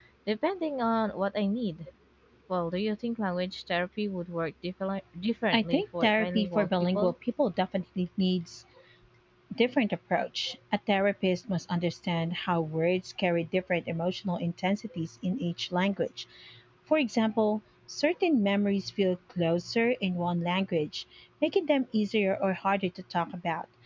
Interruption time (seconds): 6 s

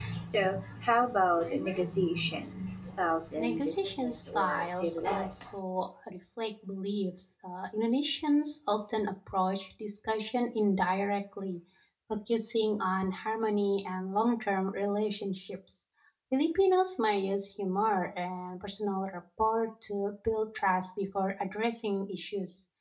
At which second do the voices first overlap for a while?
3 s

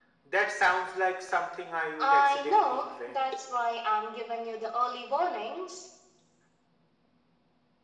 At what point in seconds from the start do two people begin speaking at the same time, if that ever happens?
2 s

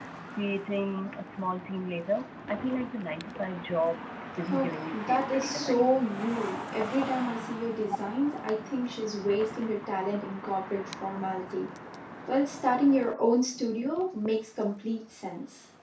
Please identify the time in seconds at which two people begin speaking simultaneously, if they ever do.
4 s

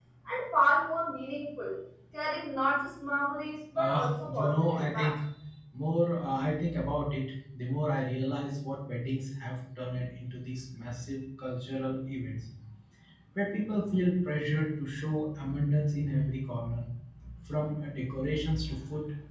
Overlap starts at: 4 s

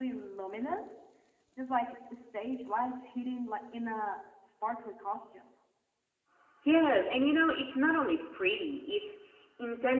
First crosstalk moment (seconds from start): none

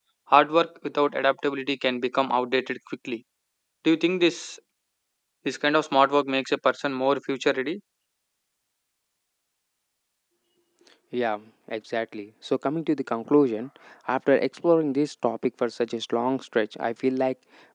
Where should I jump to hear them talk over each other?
none

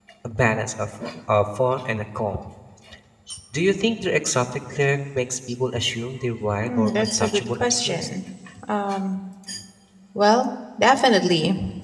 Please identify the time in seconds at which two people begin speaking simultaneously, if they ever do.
7 s

